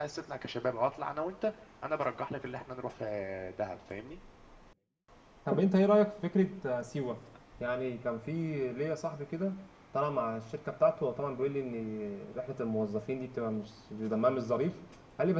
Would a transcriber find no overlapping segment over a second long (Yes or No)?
Yes